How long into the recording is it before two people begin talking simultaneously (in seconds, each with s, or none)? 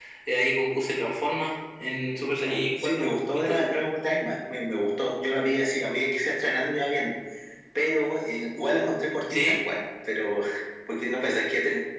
2.4 s